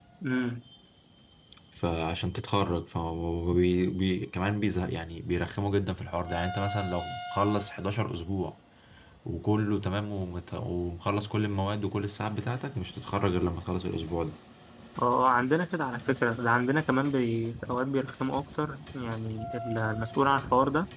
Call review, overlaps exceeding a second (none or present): none